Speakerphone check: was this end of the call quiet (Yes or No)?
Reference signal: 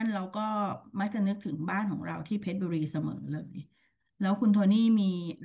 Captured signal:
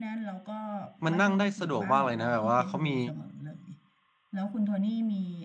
No